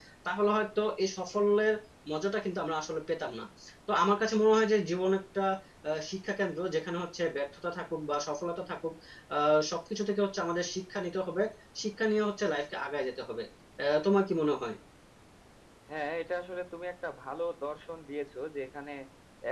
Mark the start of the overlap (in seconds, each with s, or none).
none